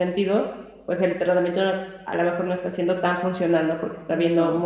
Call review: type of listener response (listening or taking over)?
listening